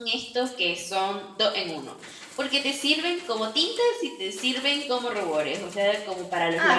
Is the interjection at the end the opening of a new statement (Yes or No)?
Yes